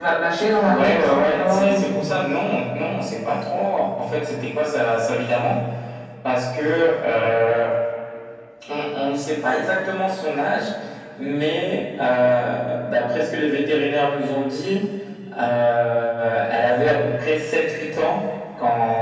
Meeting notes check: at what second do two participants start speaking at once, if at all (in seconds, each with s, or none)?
0.7 s